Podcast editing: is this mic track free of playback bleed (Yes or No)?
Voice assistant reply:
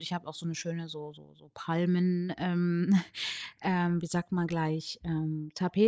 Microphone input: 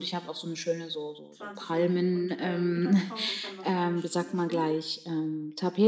No